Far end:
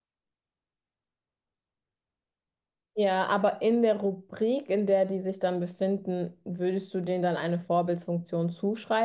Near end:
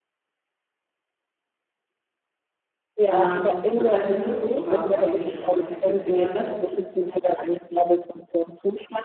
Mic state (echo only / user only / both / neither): both